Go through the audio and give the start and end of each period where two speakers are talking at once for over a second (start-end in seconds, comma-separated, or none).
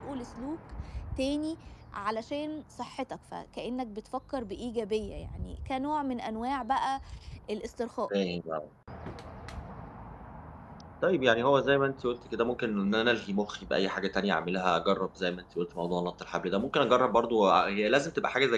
none